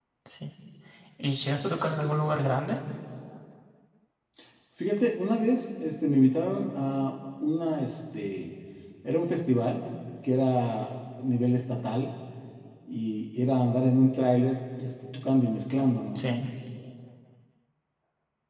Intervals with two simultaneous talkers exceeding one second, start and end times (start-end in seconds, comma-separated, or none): none